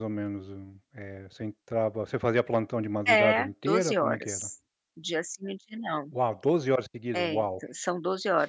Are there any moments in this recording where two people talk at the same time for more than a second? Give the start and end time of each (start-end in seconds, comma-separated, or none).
3.1-4.5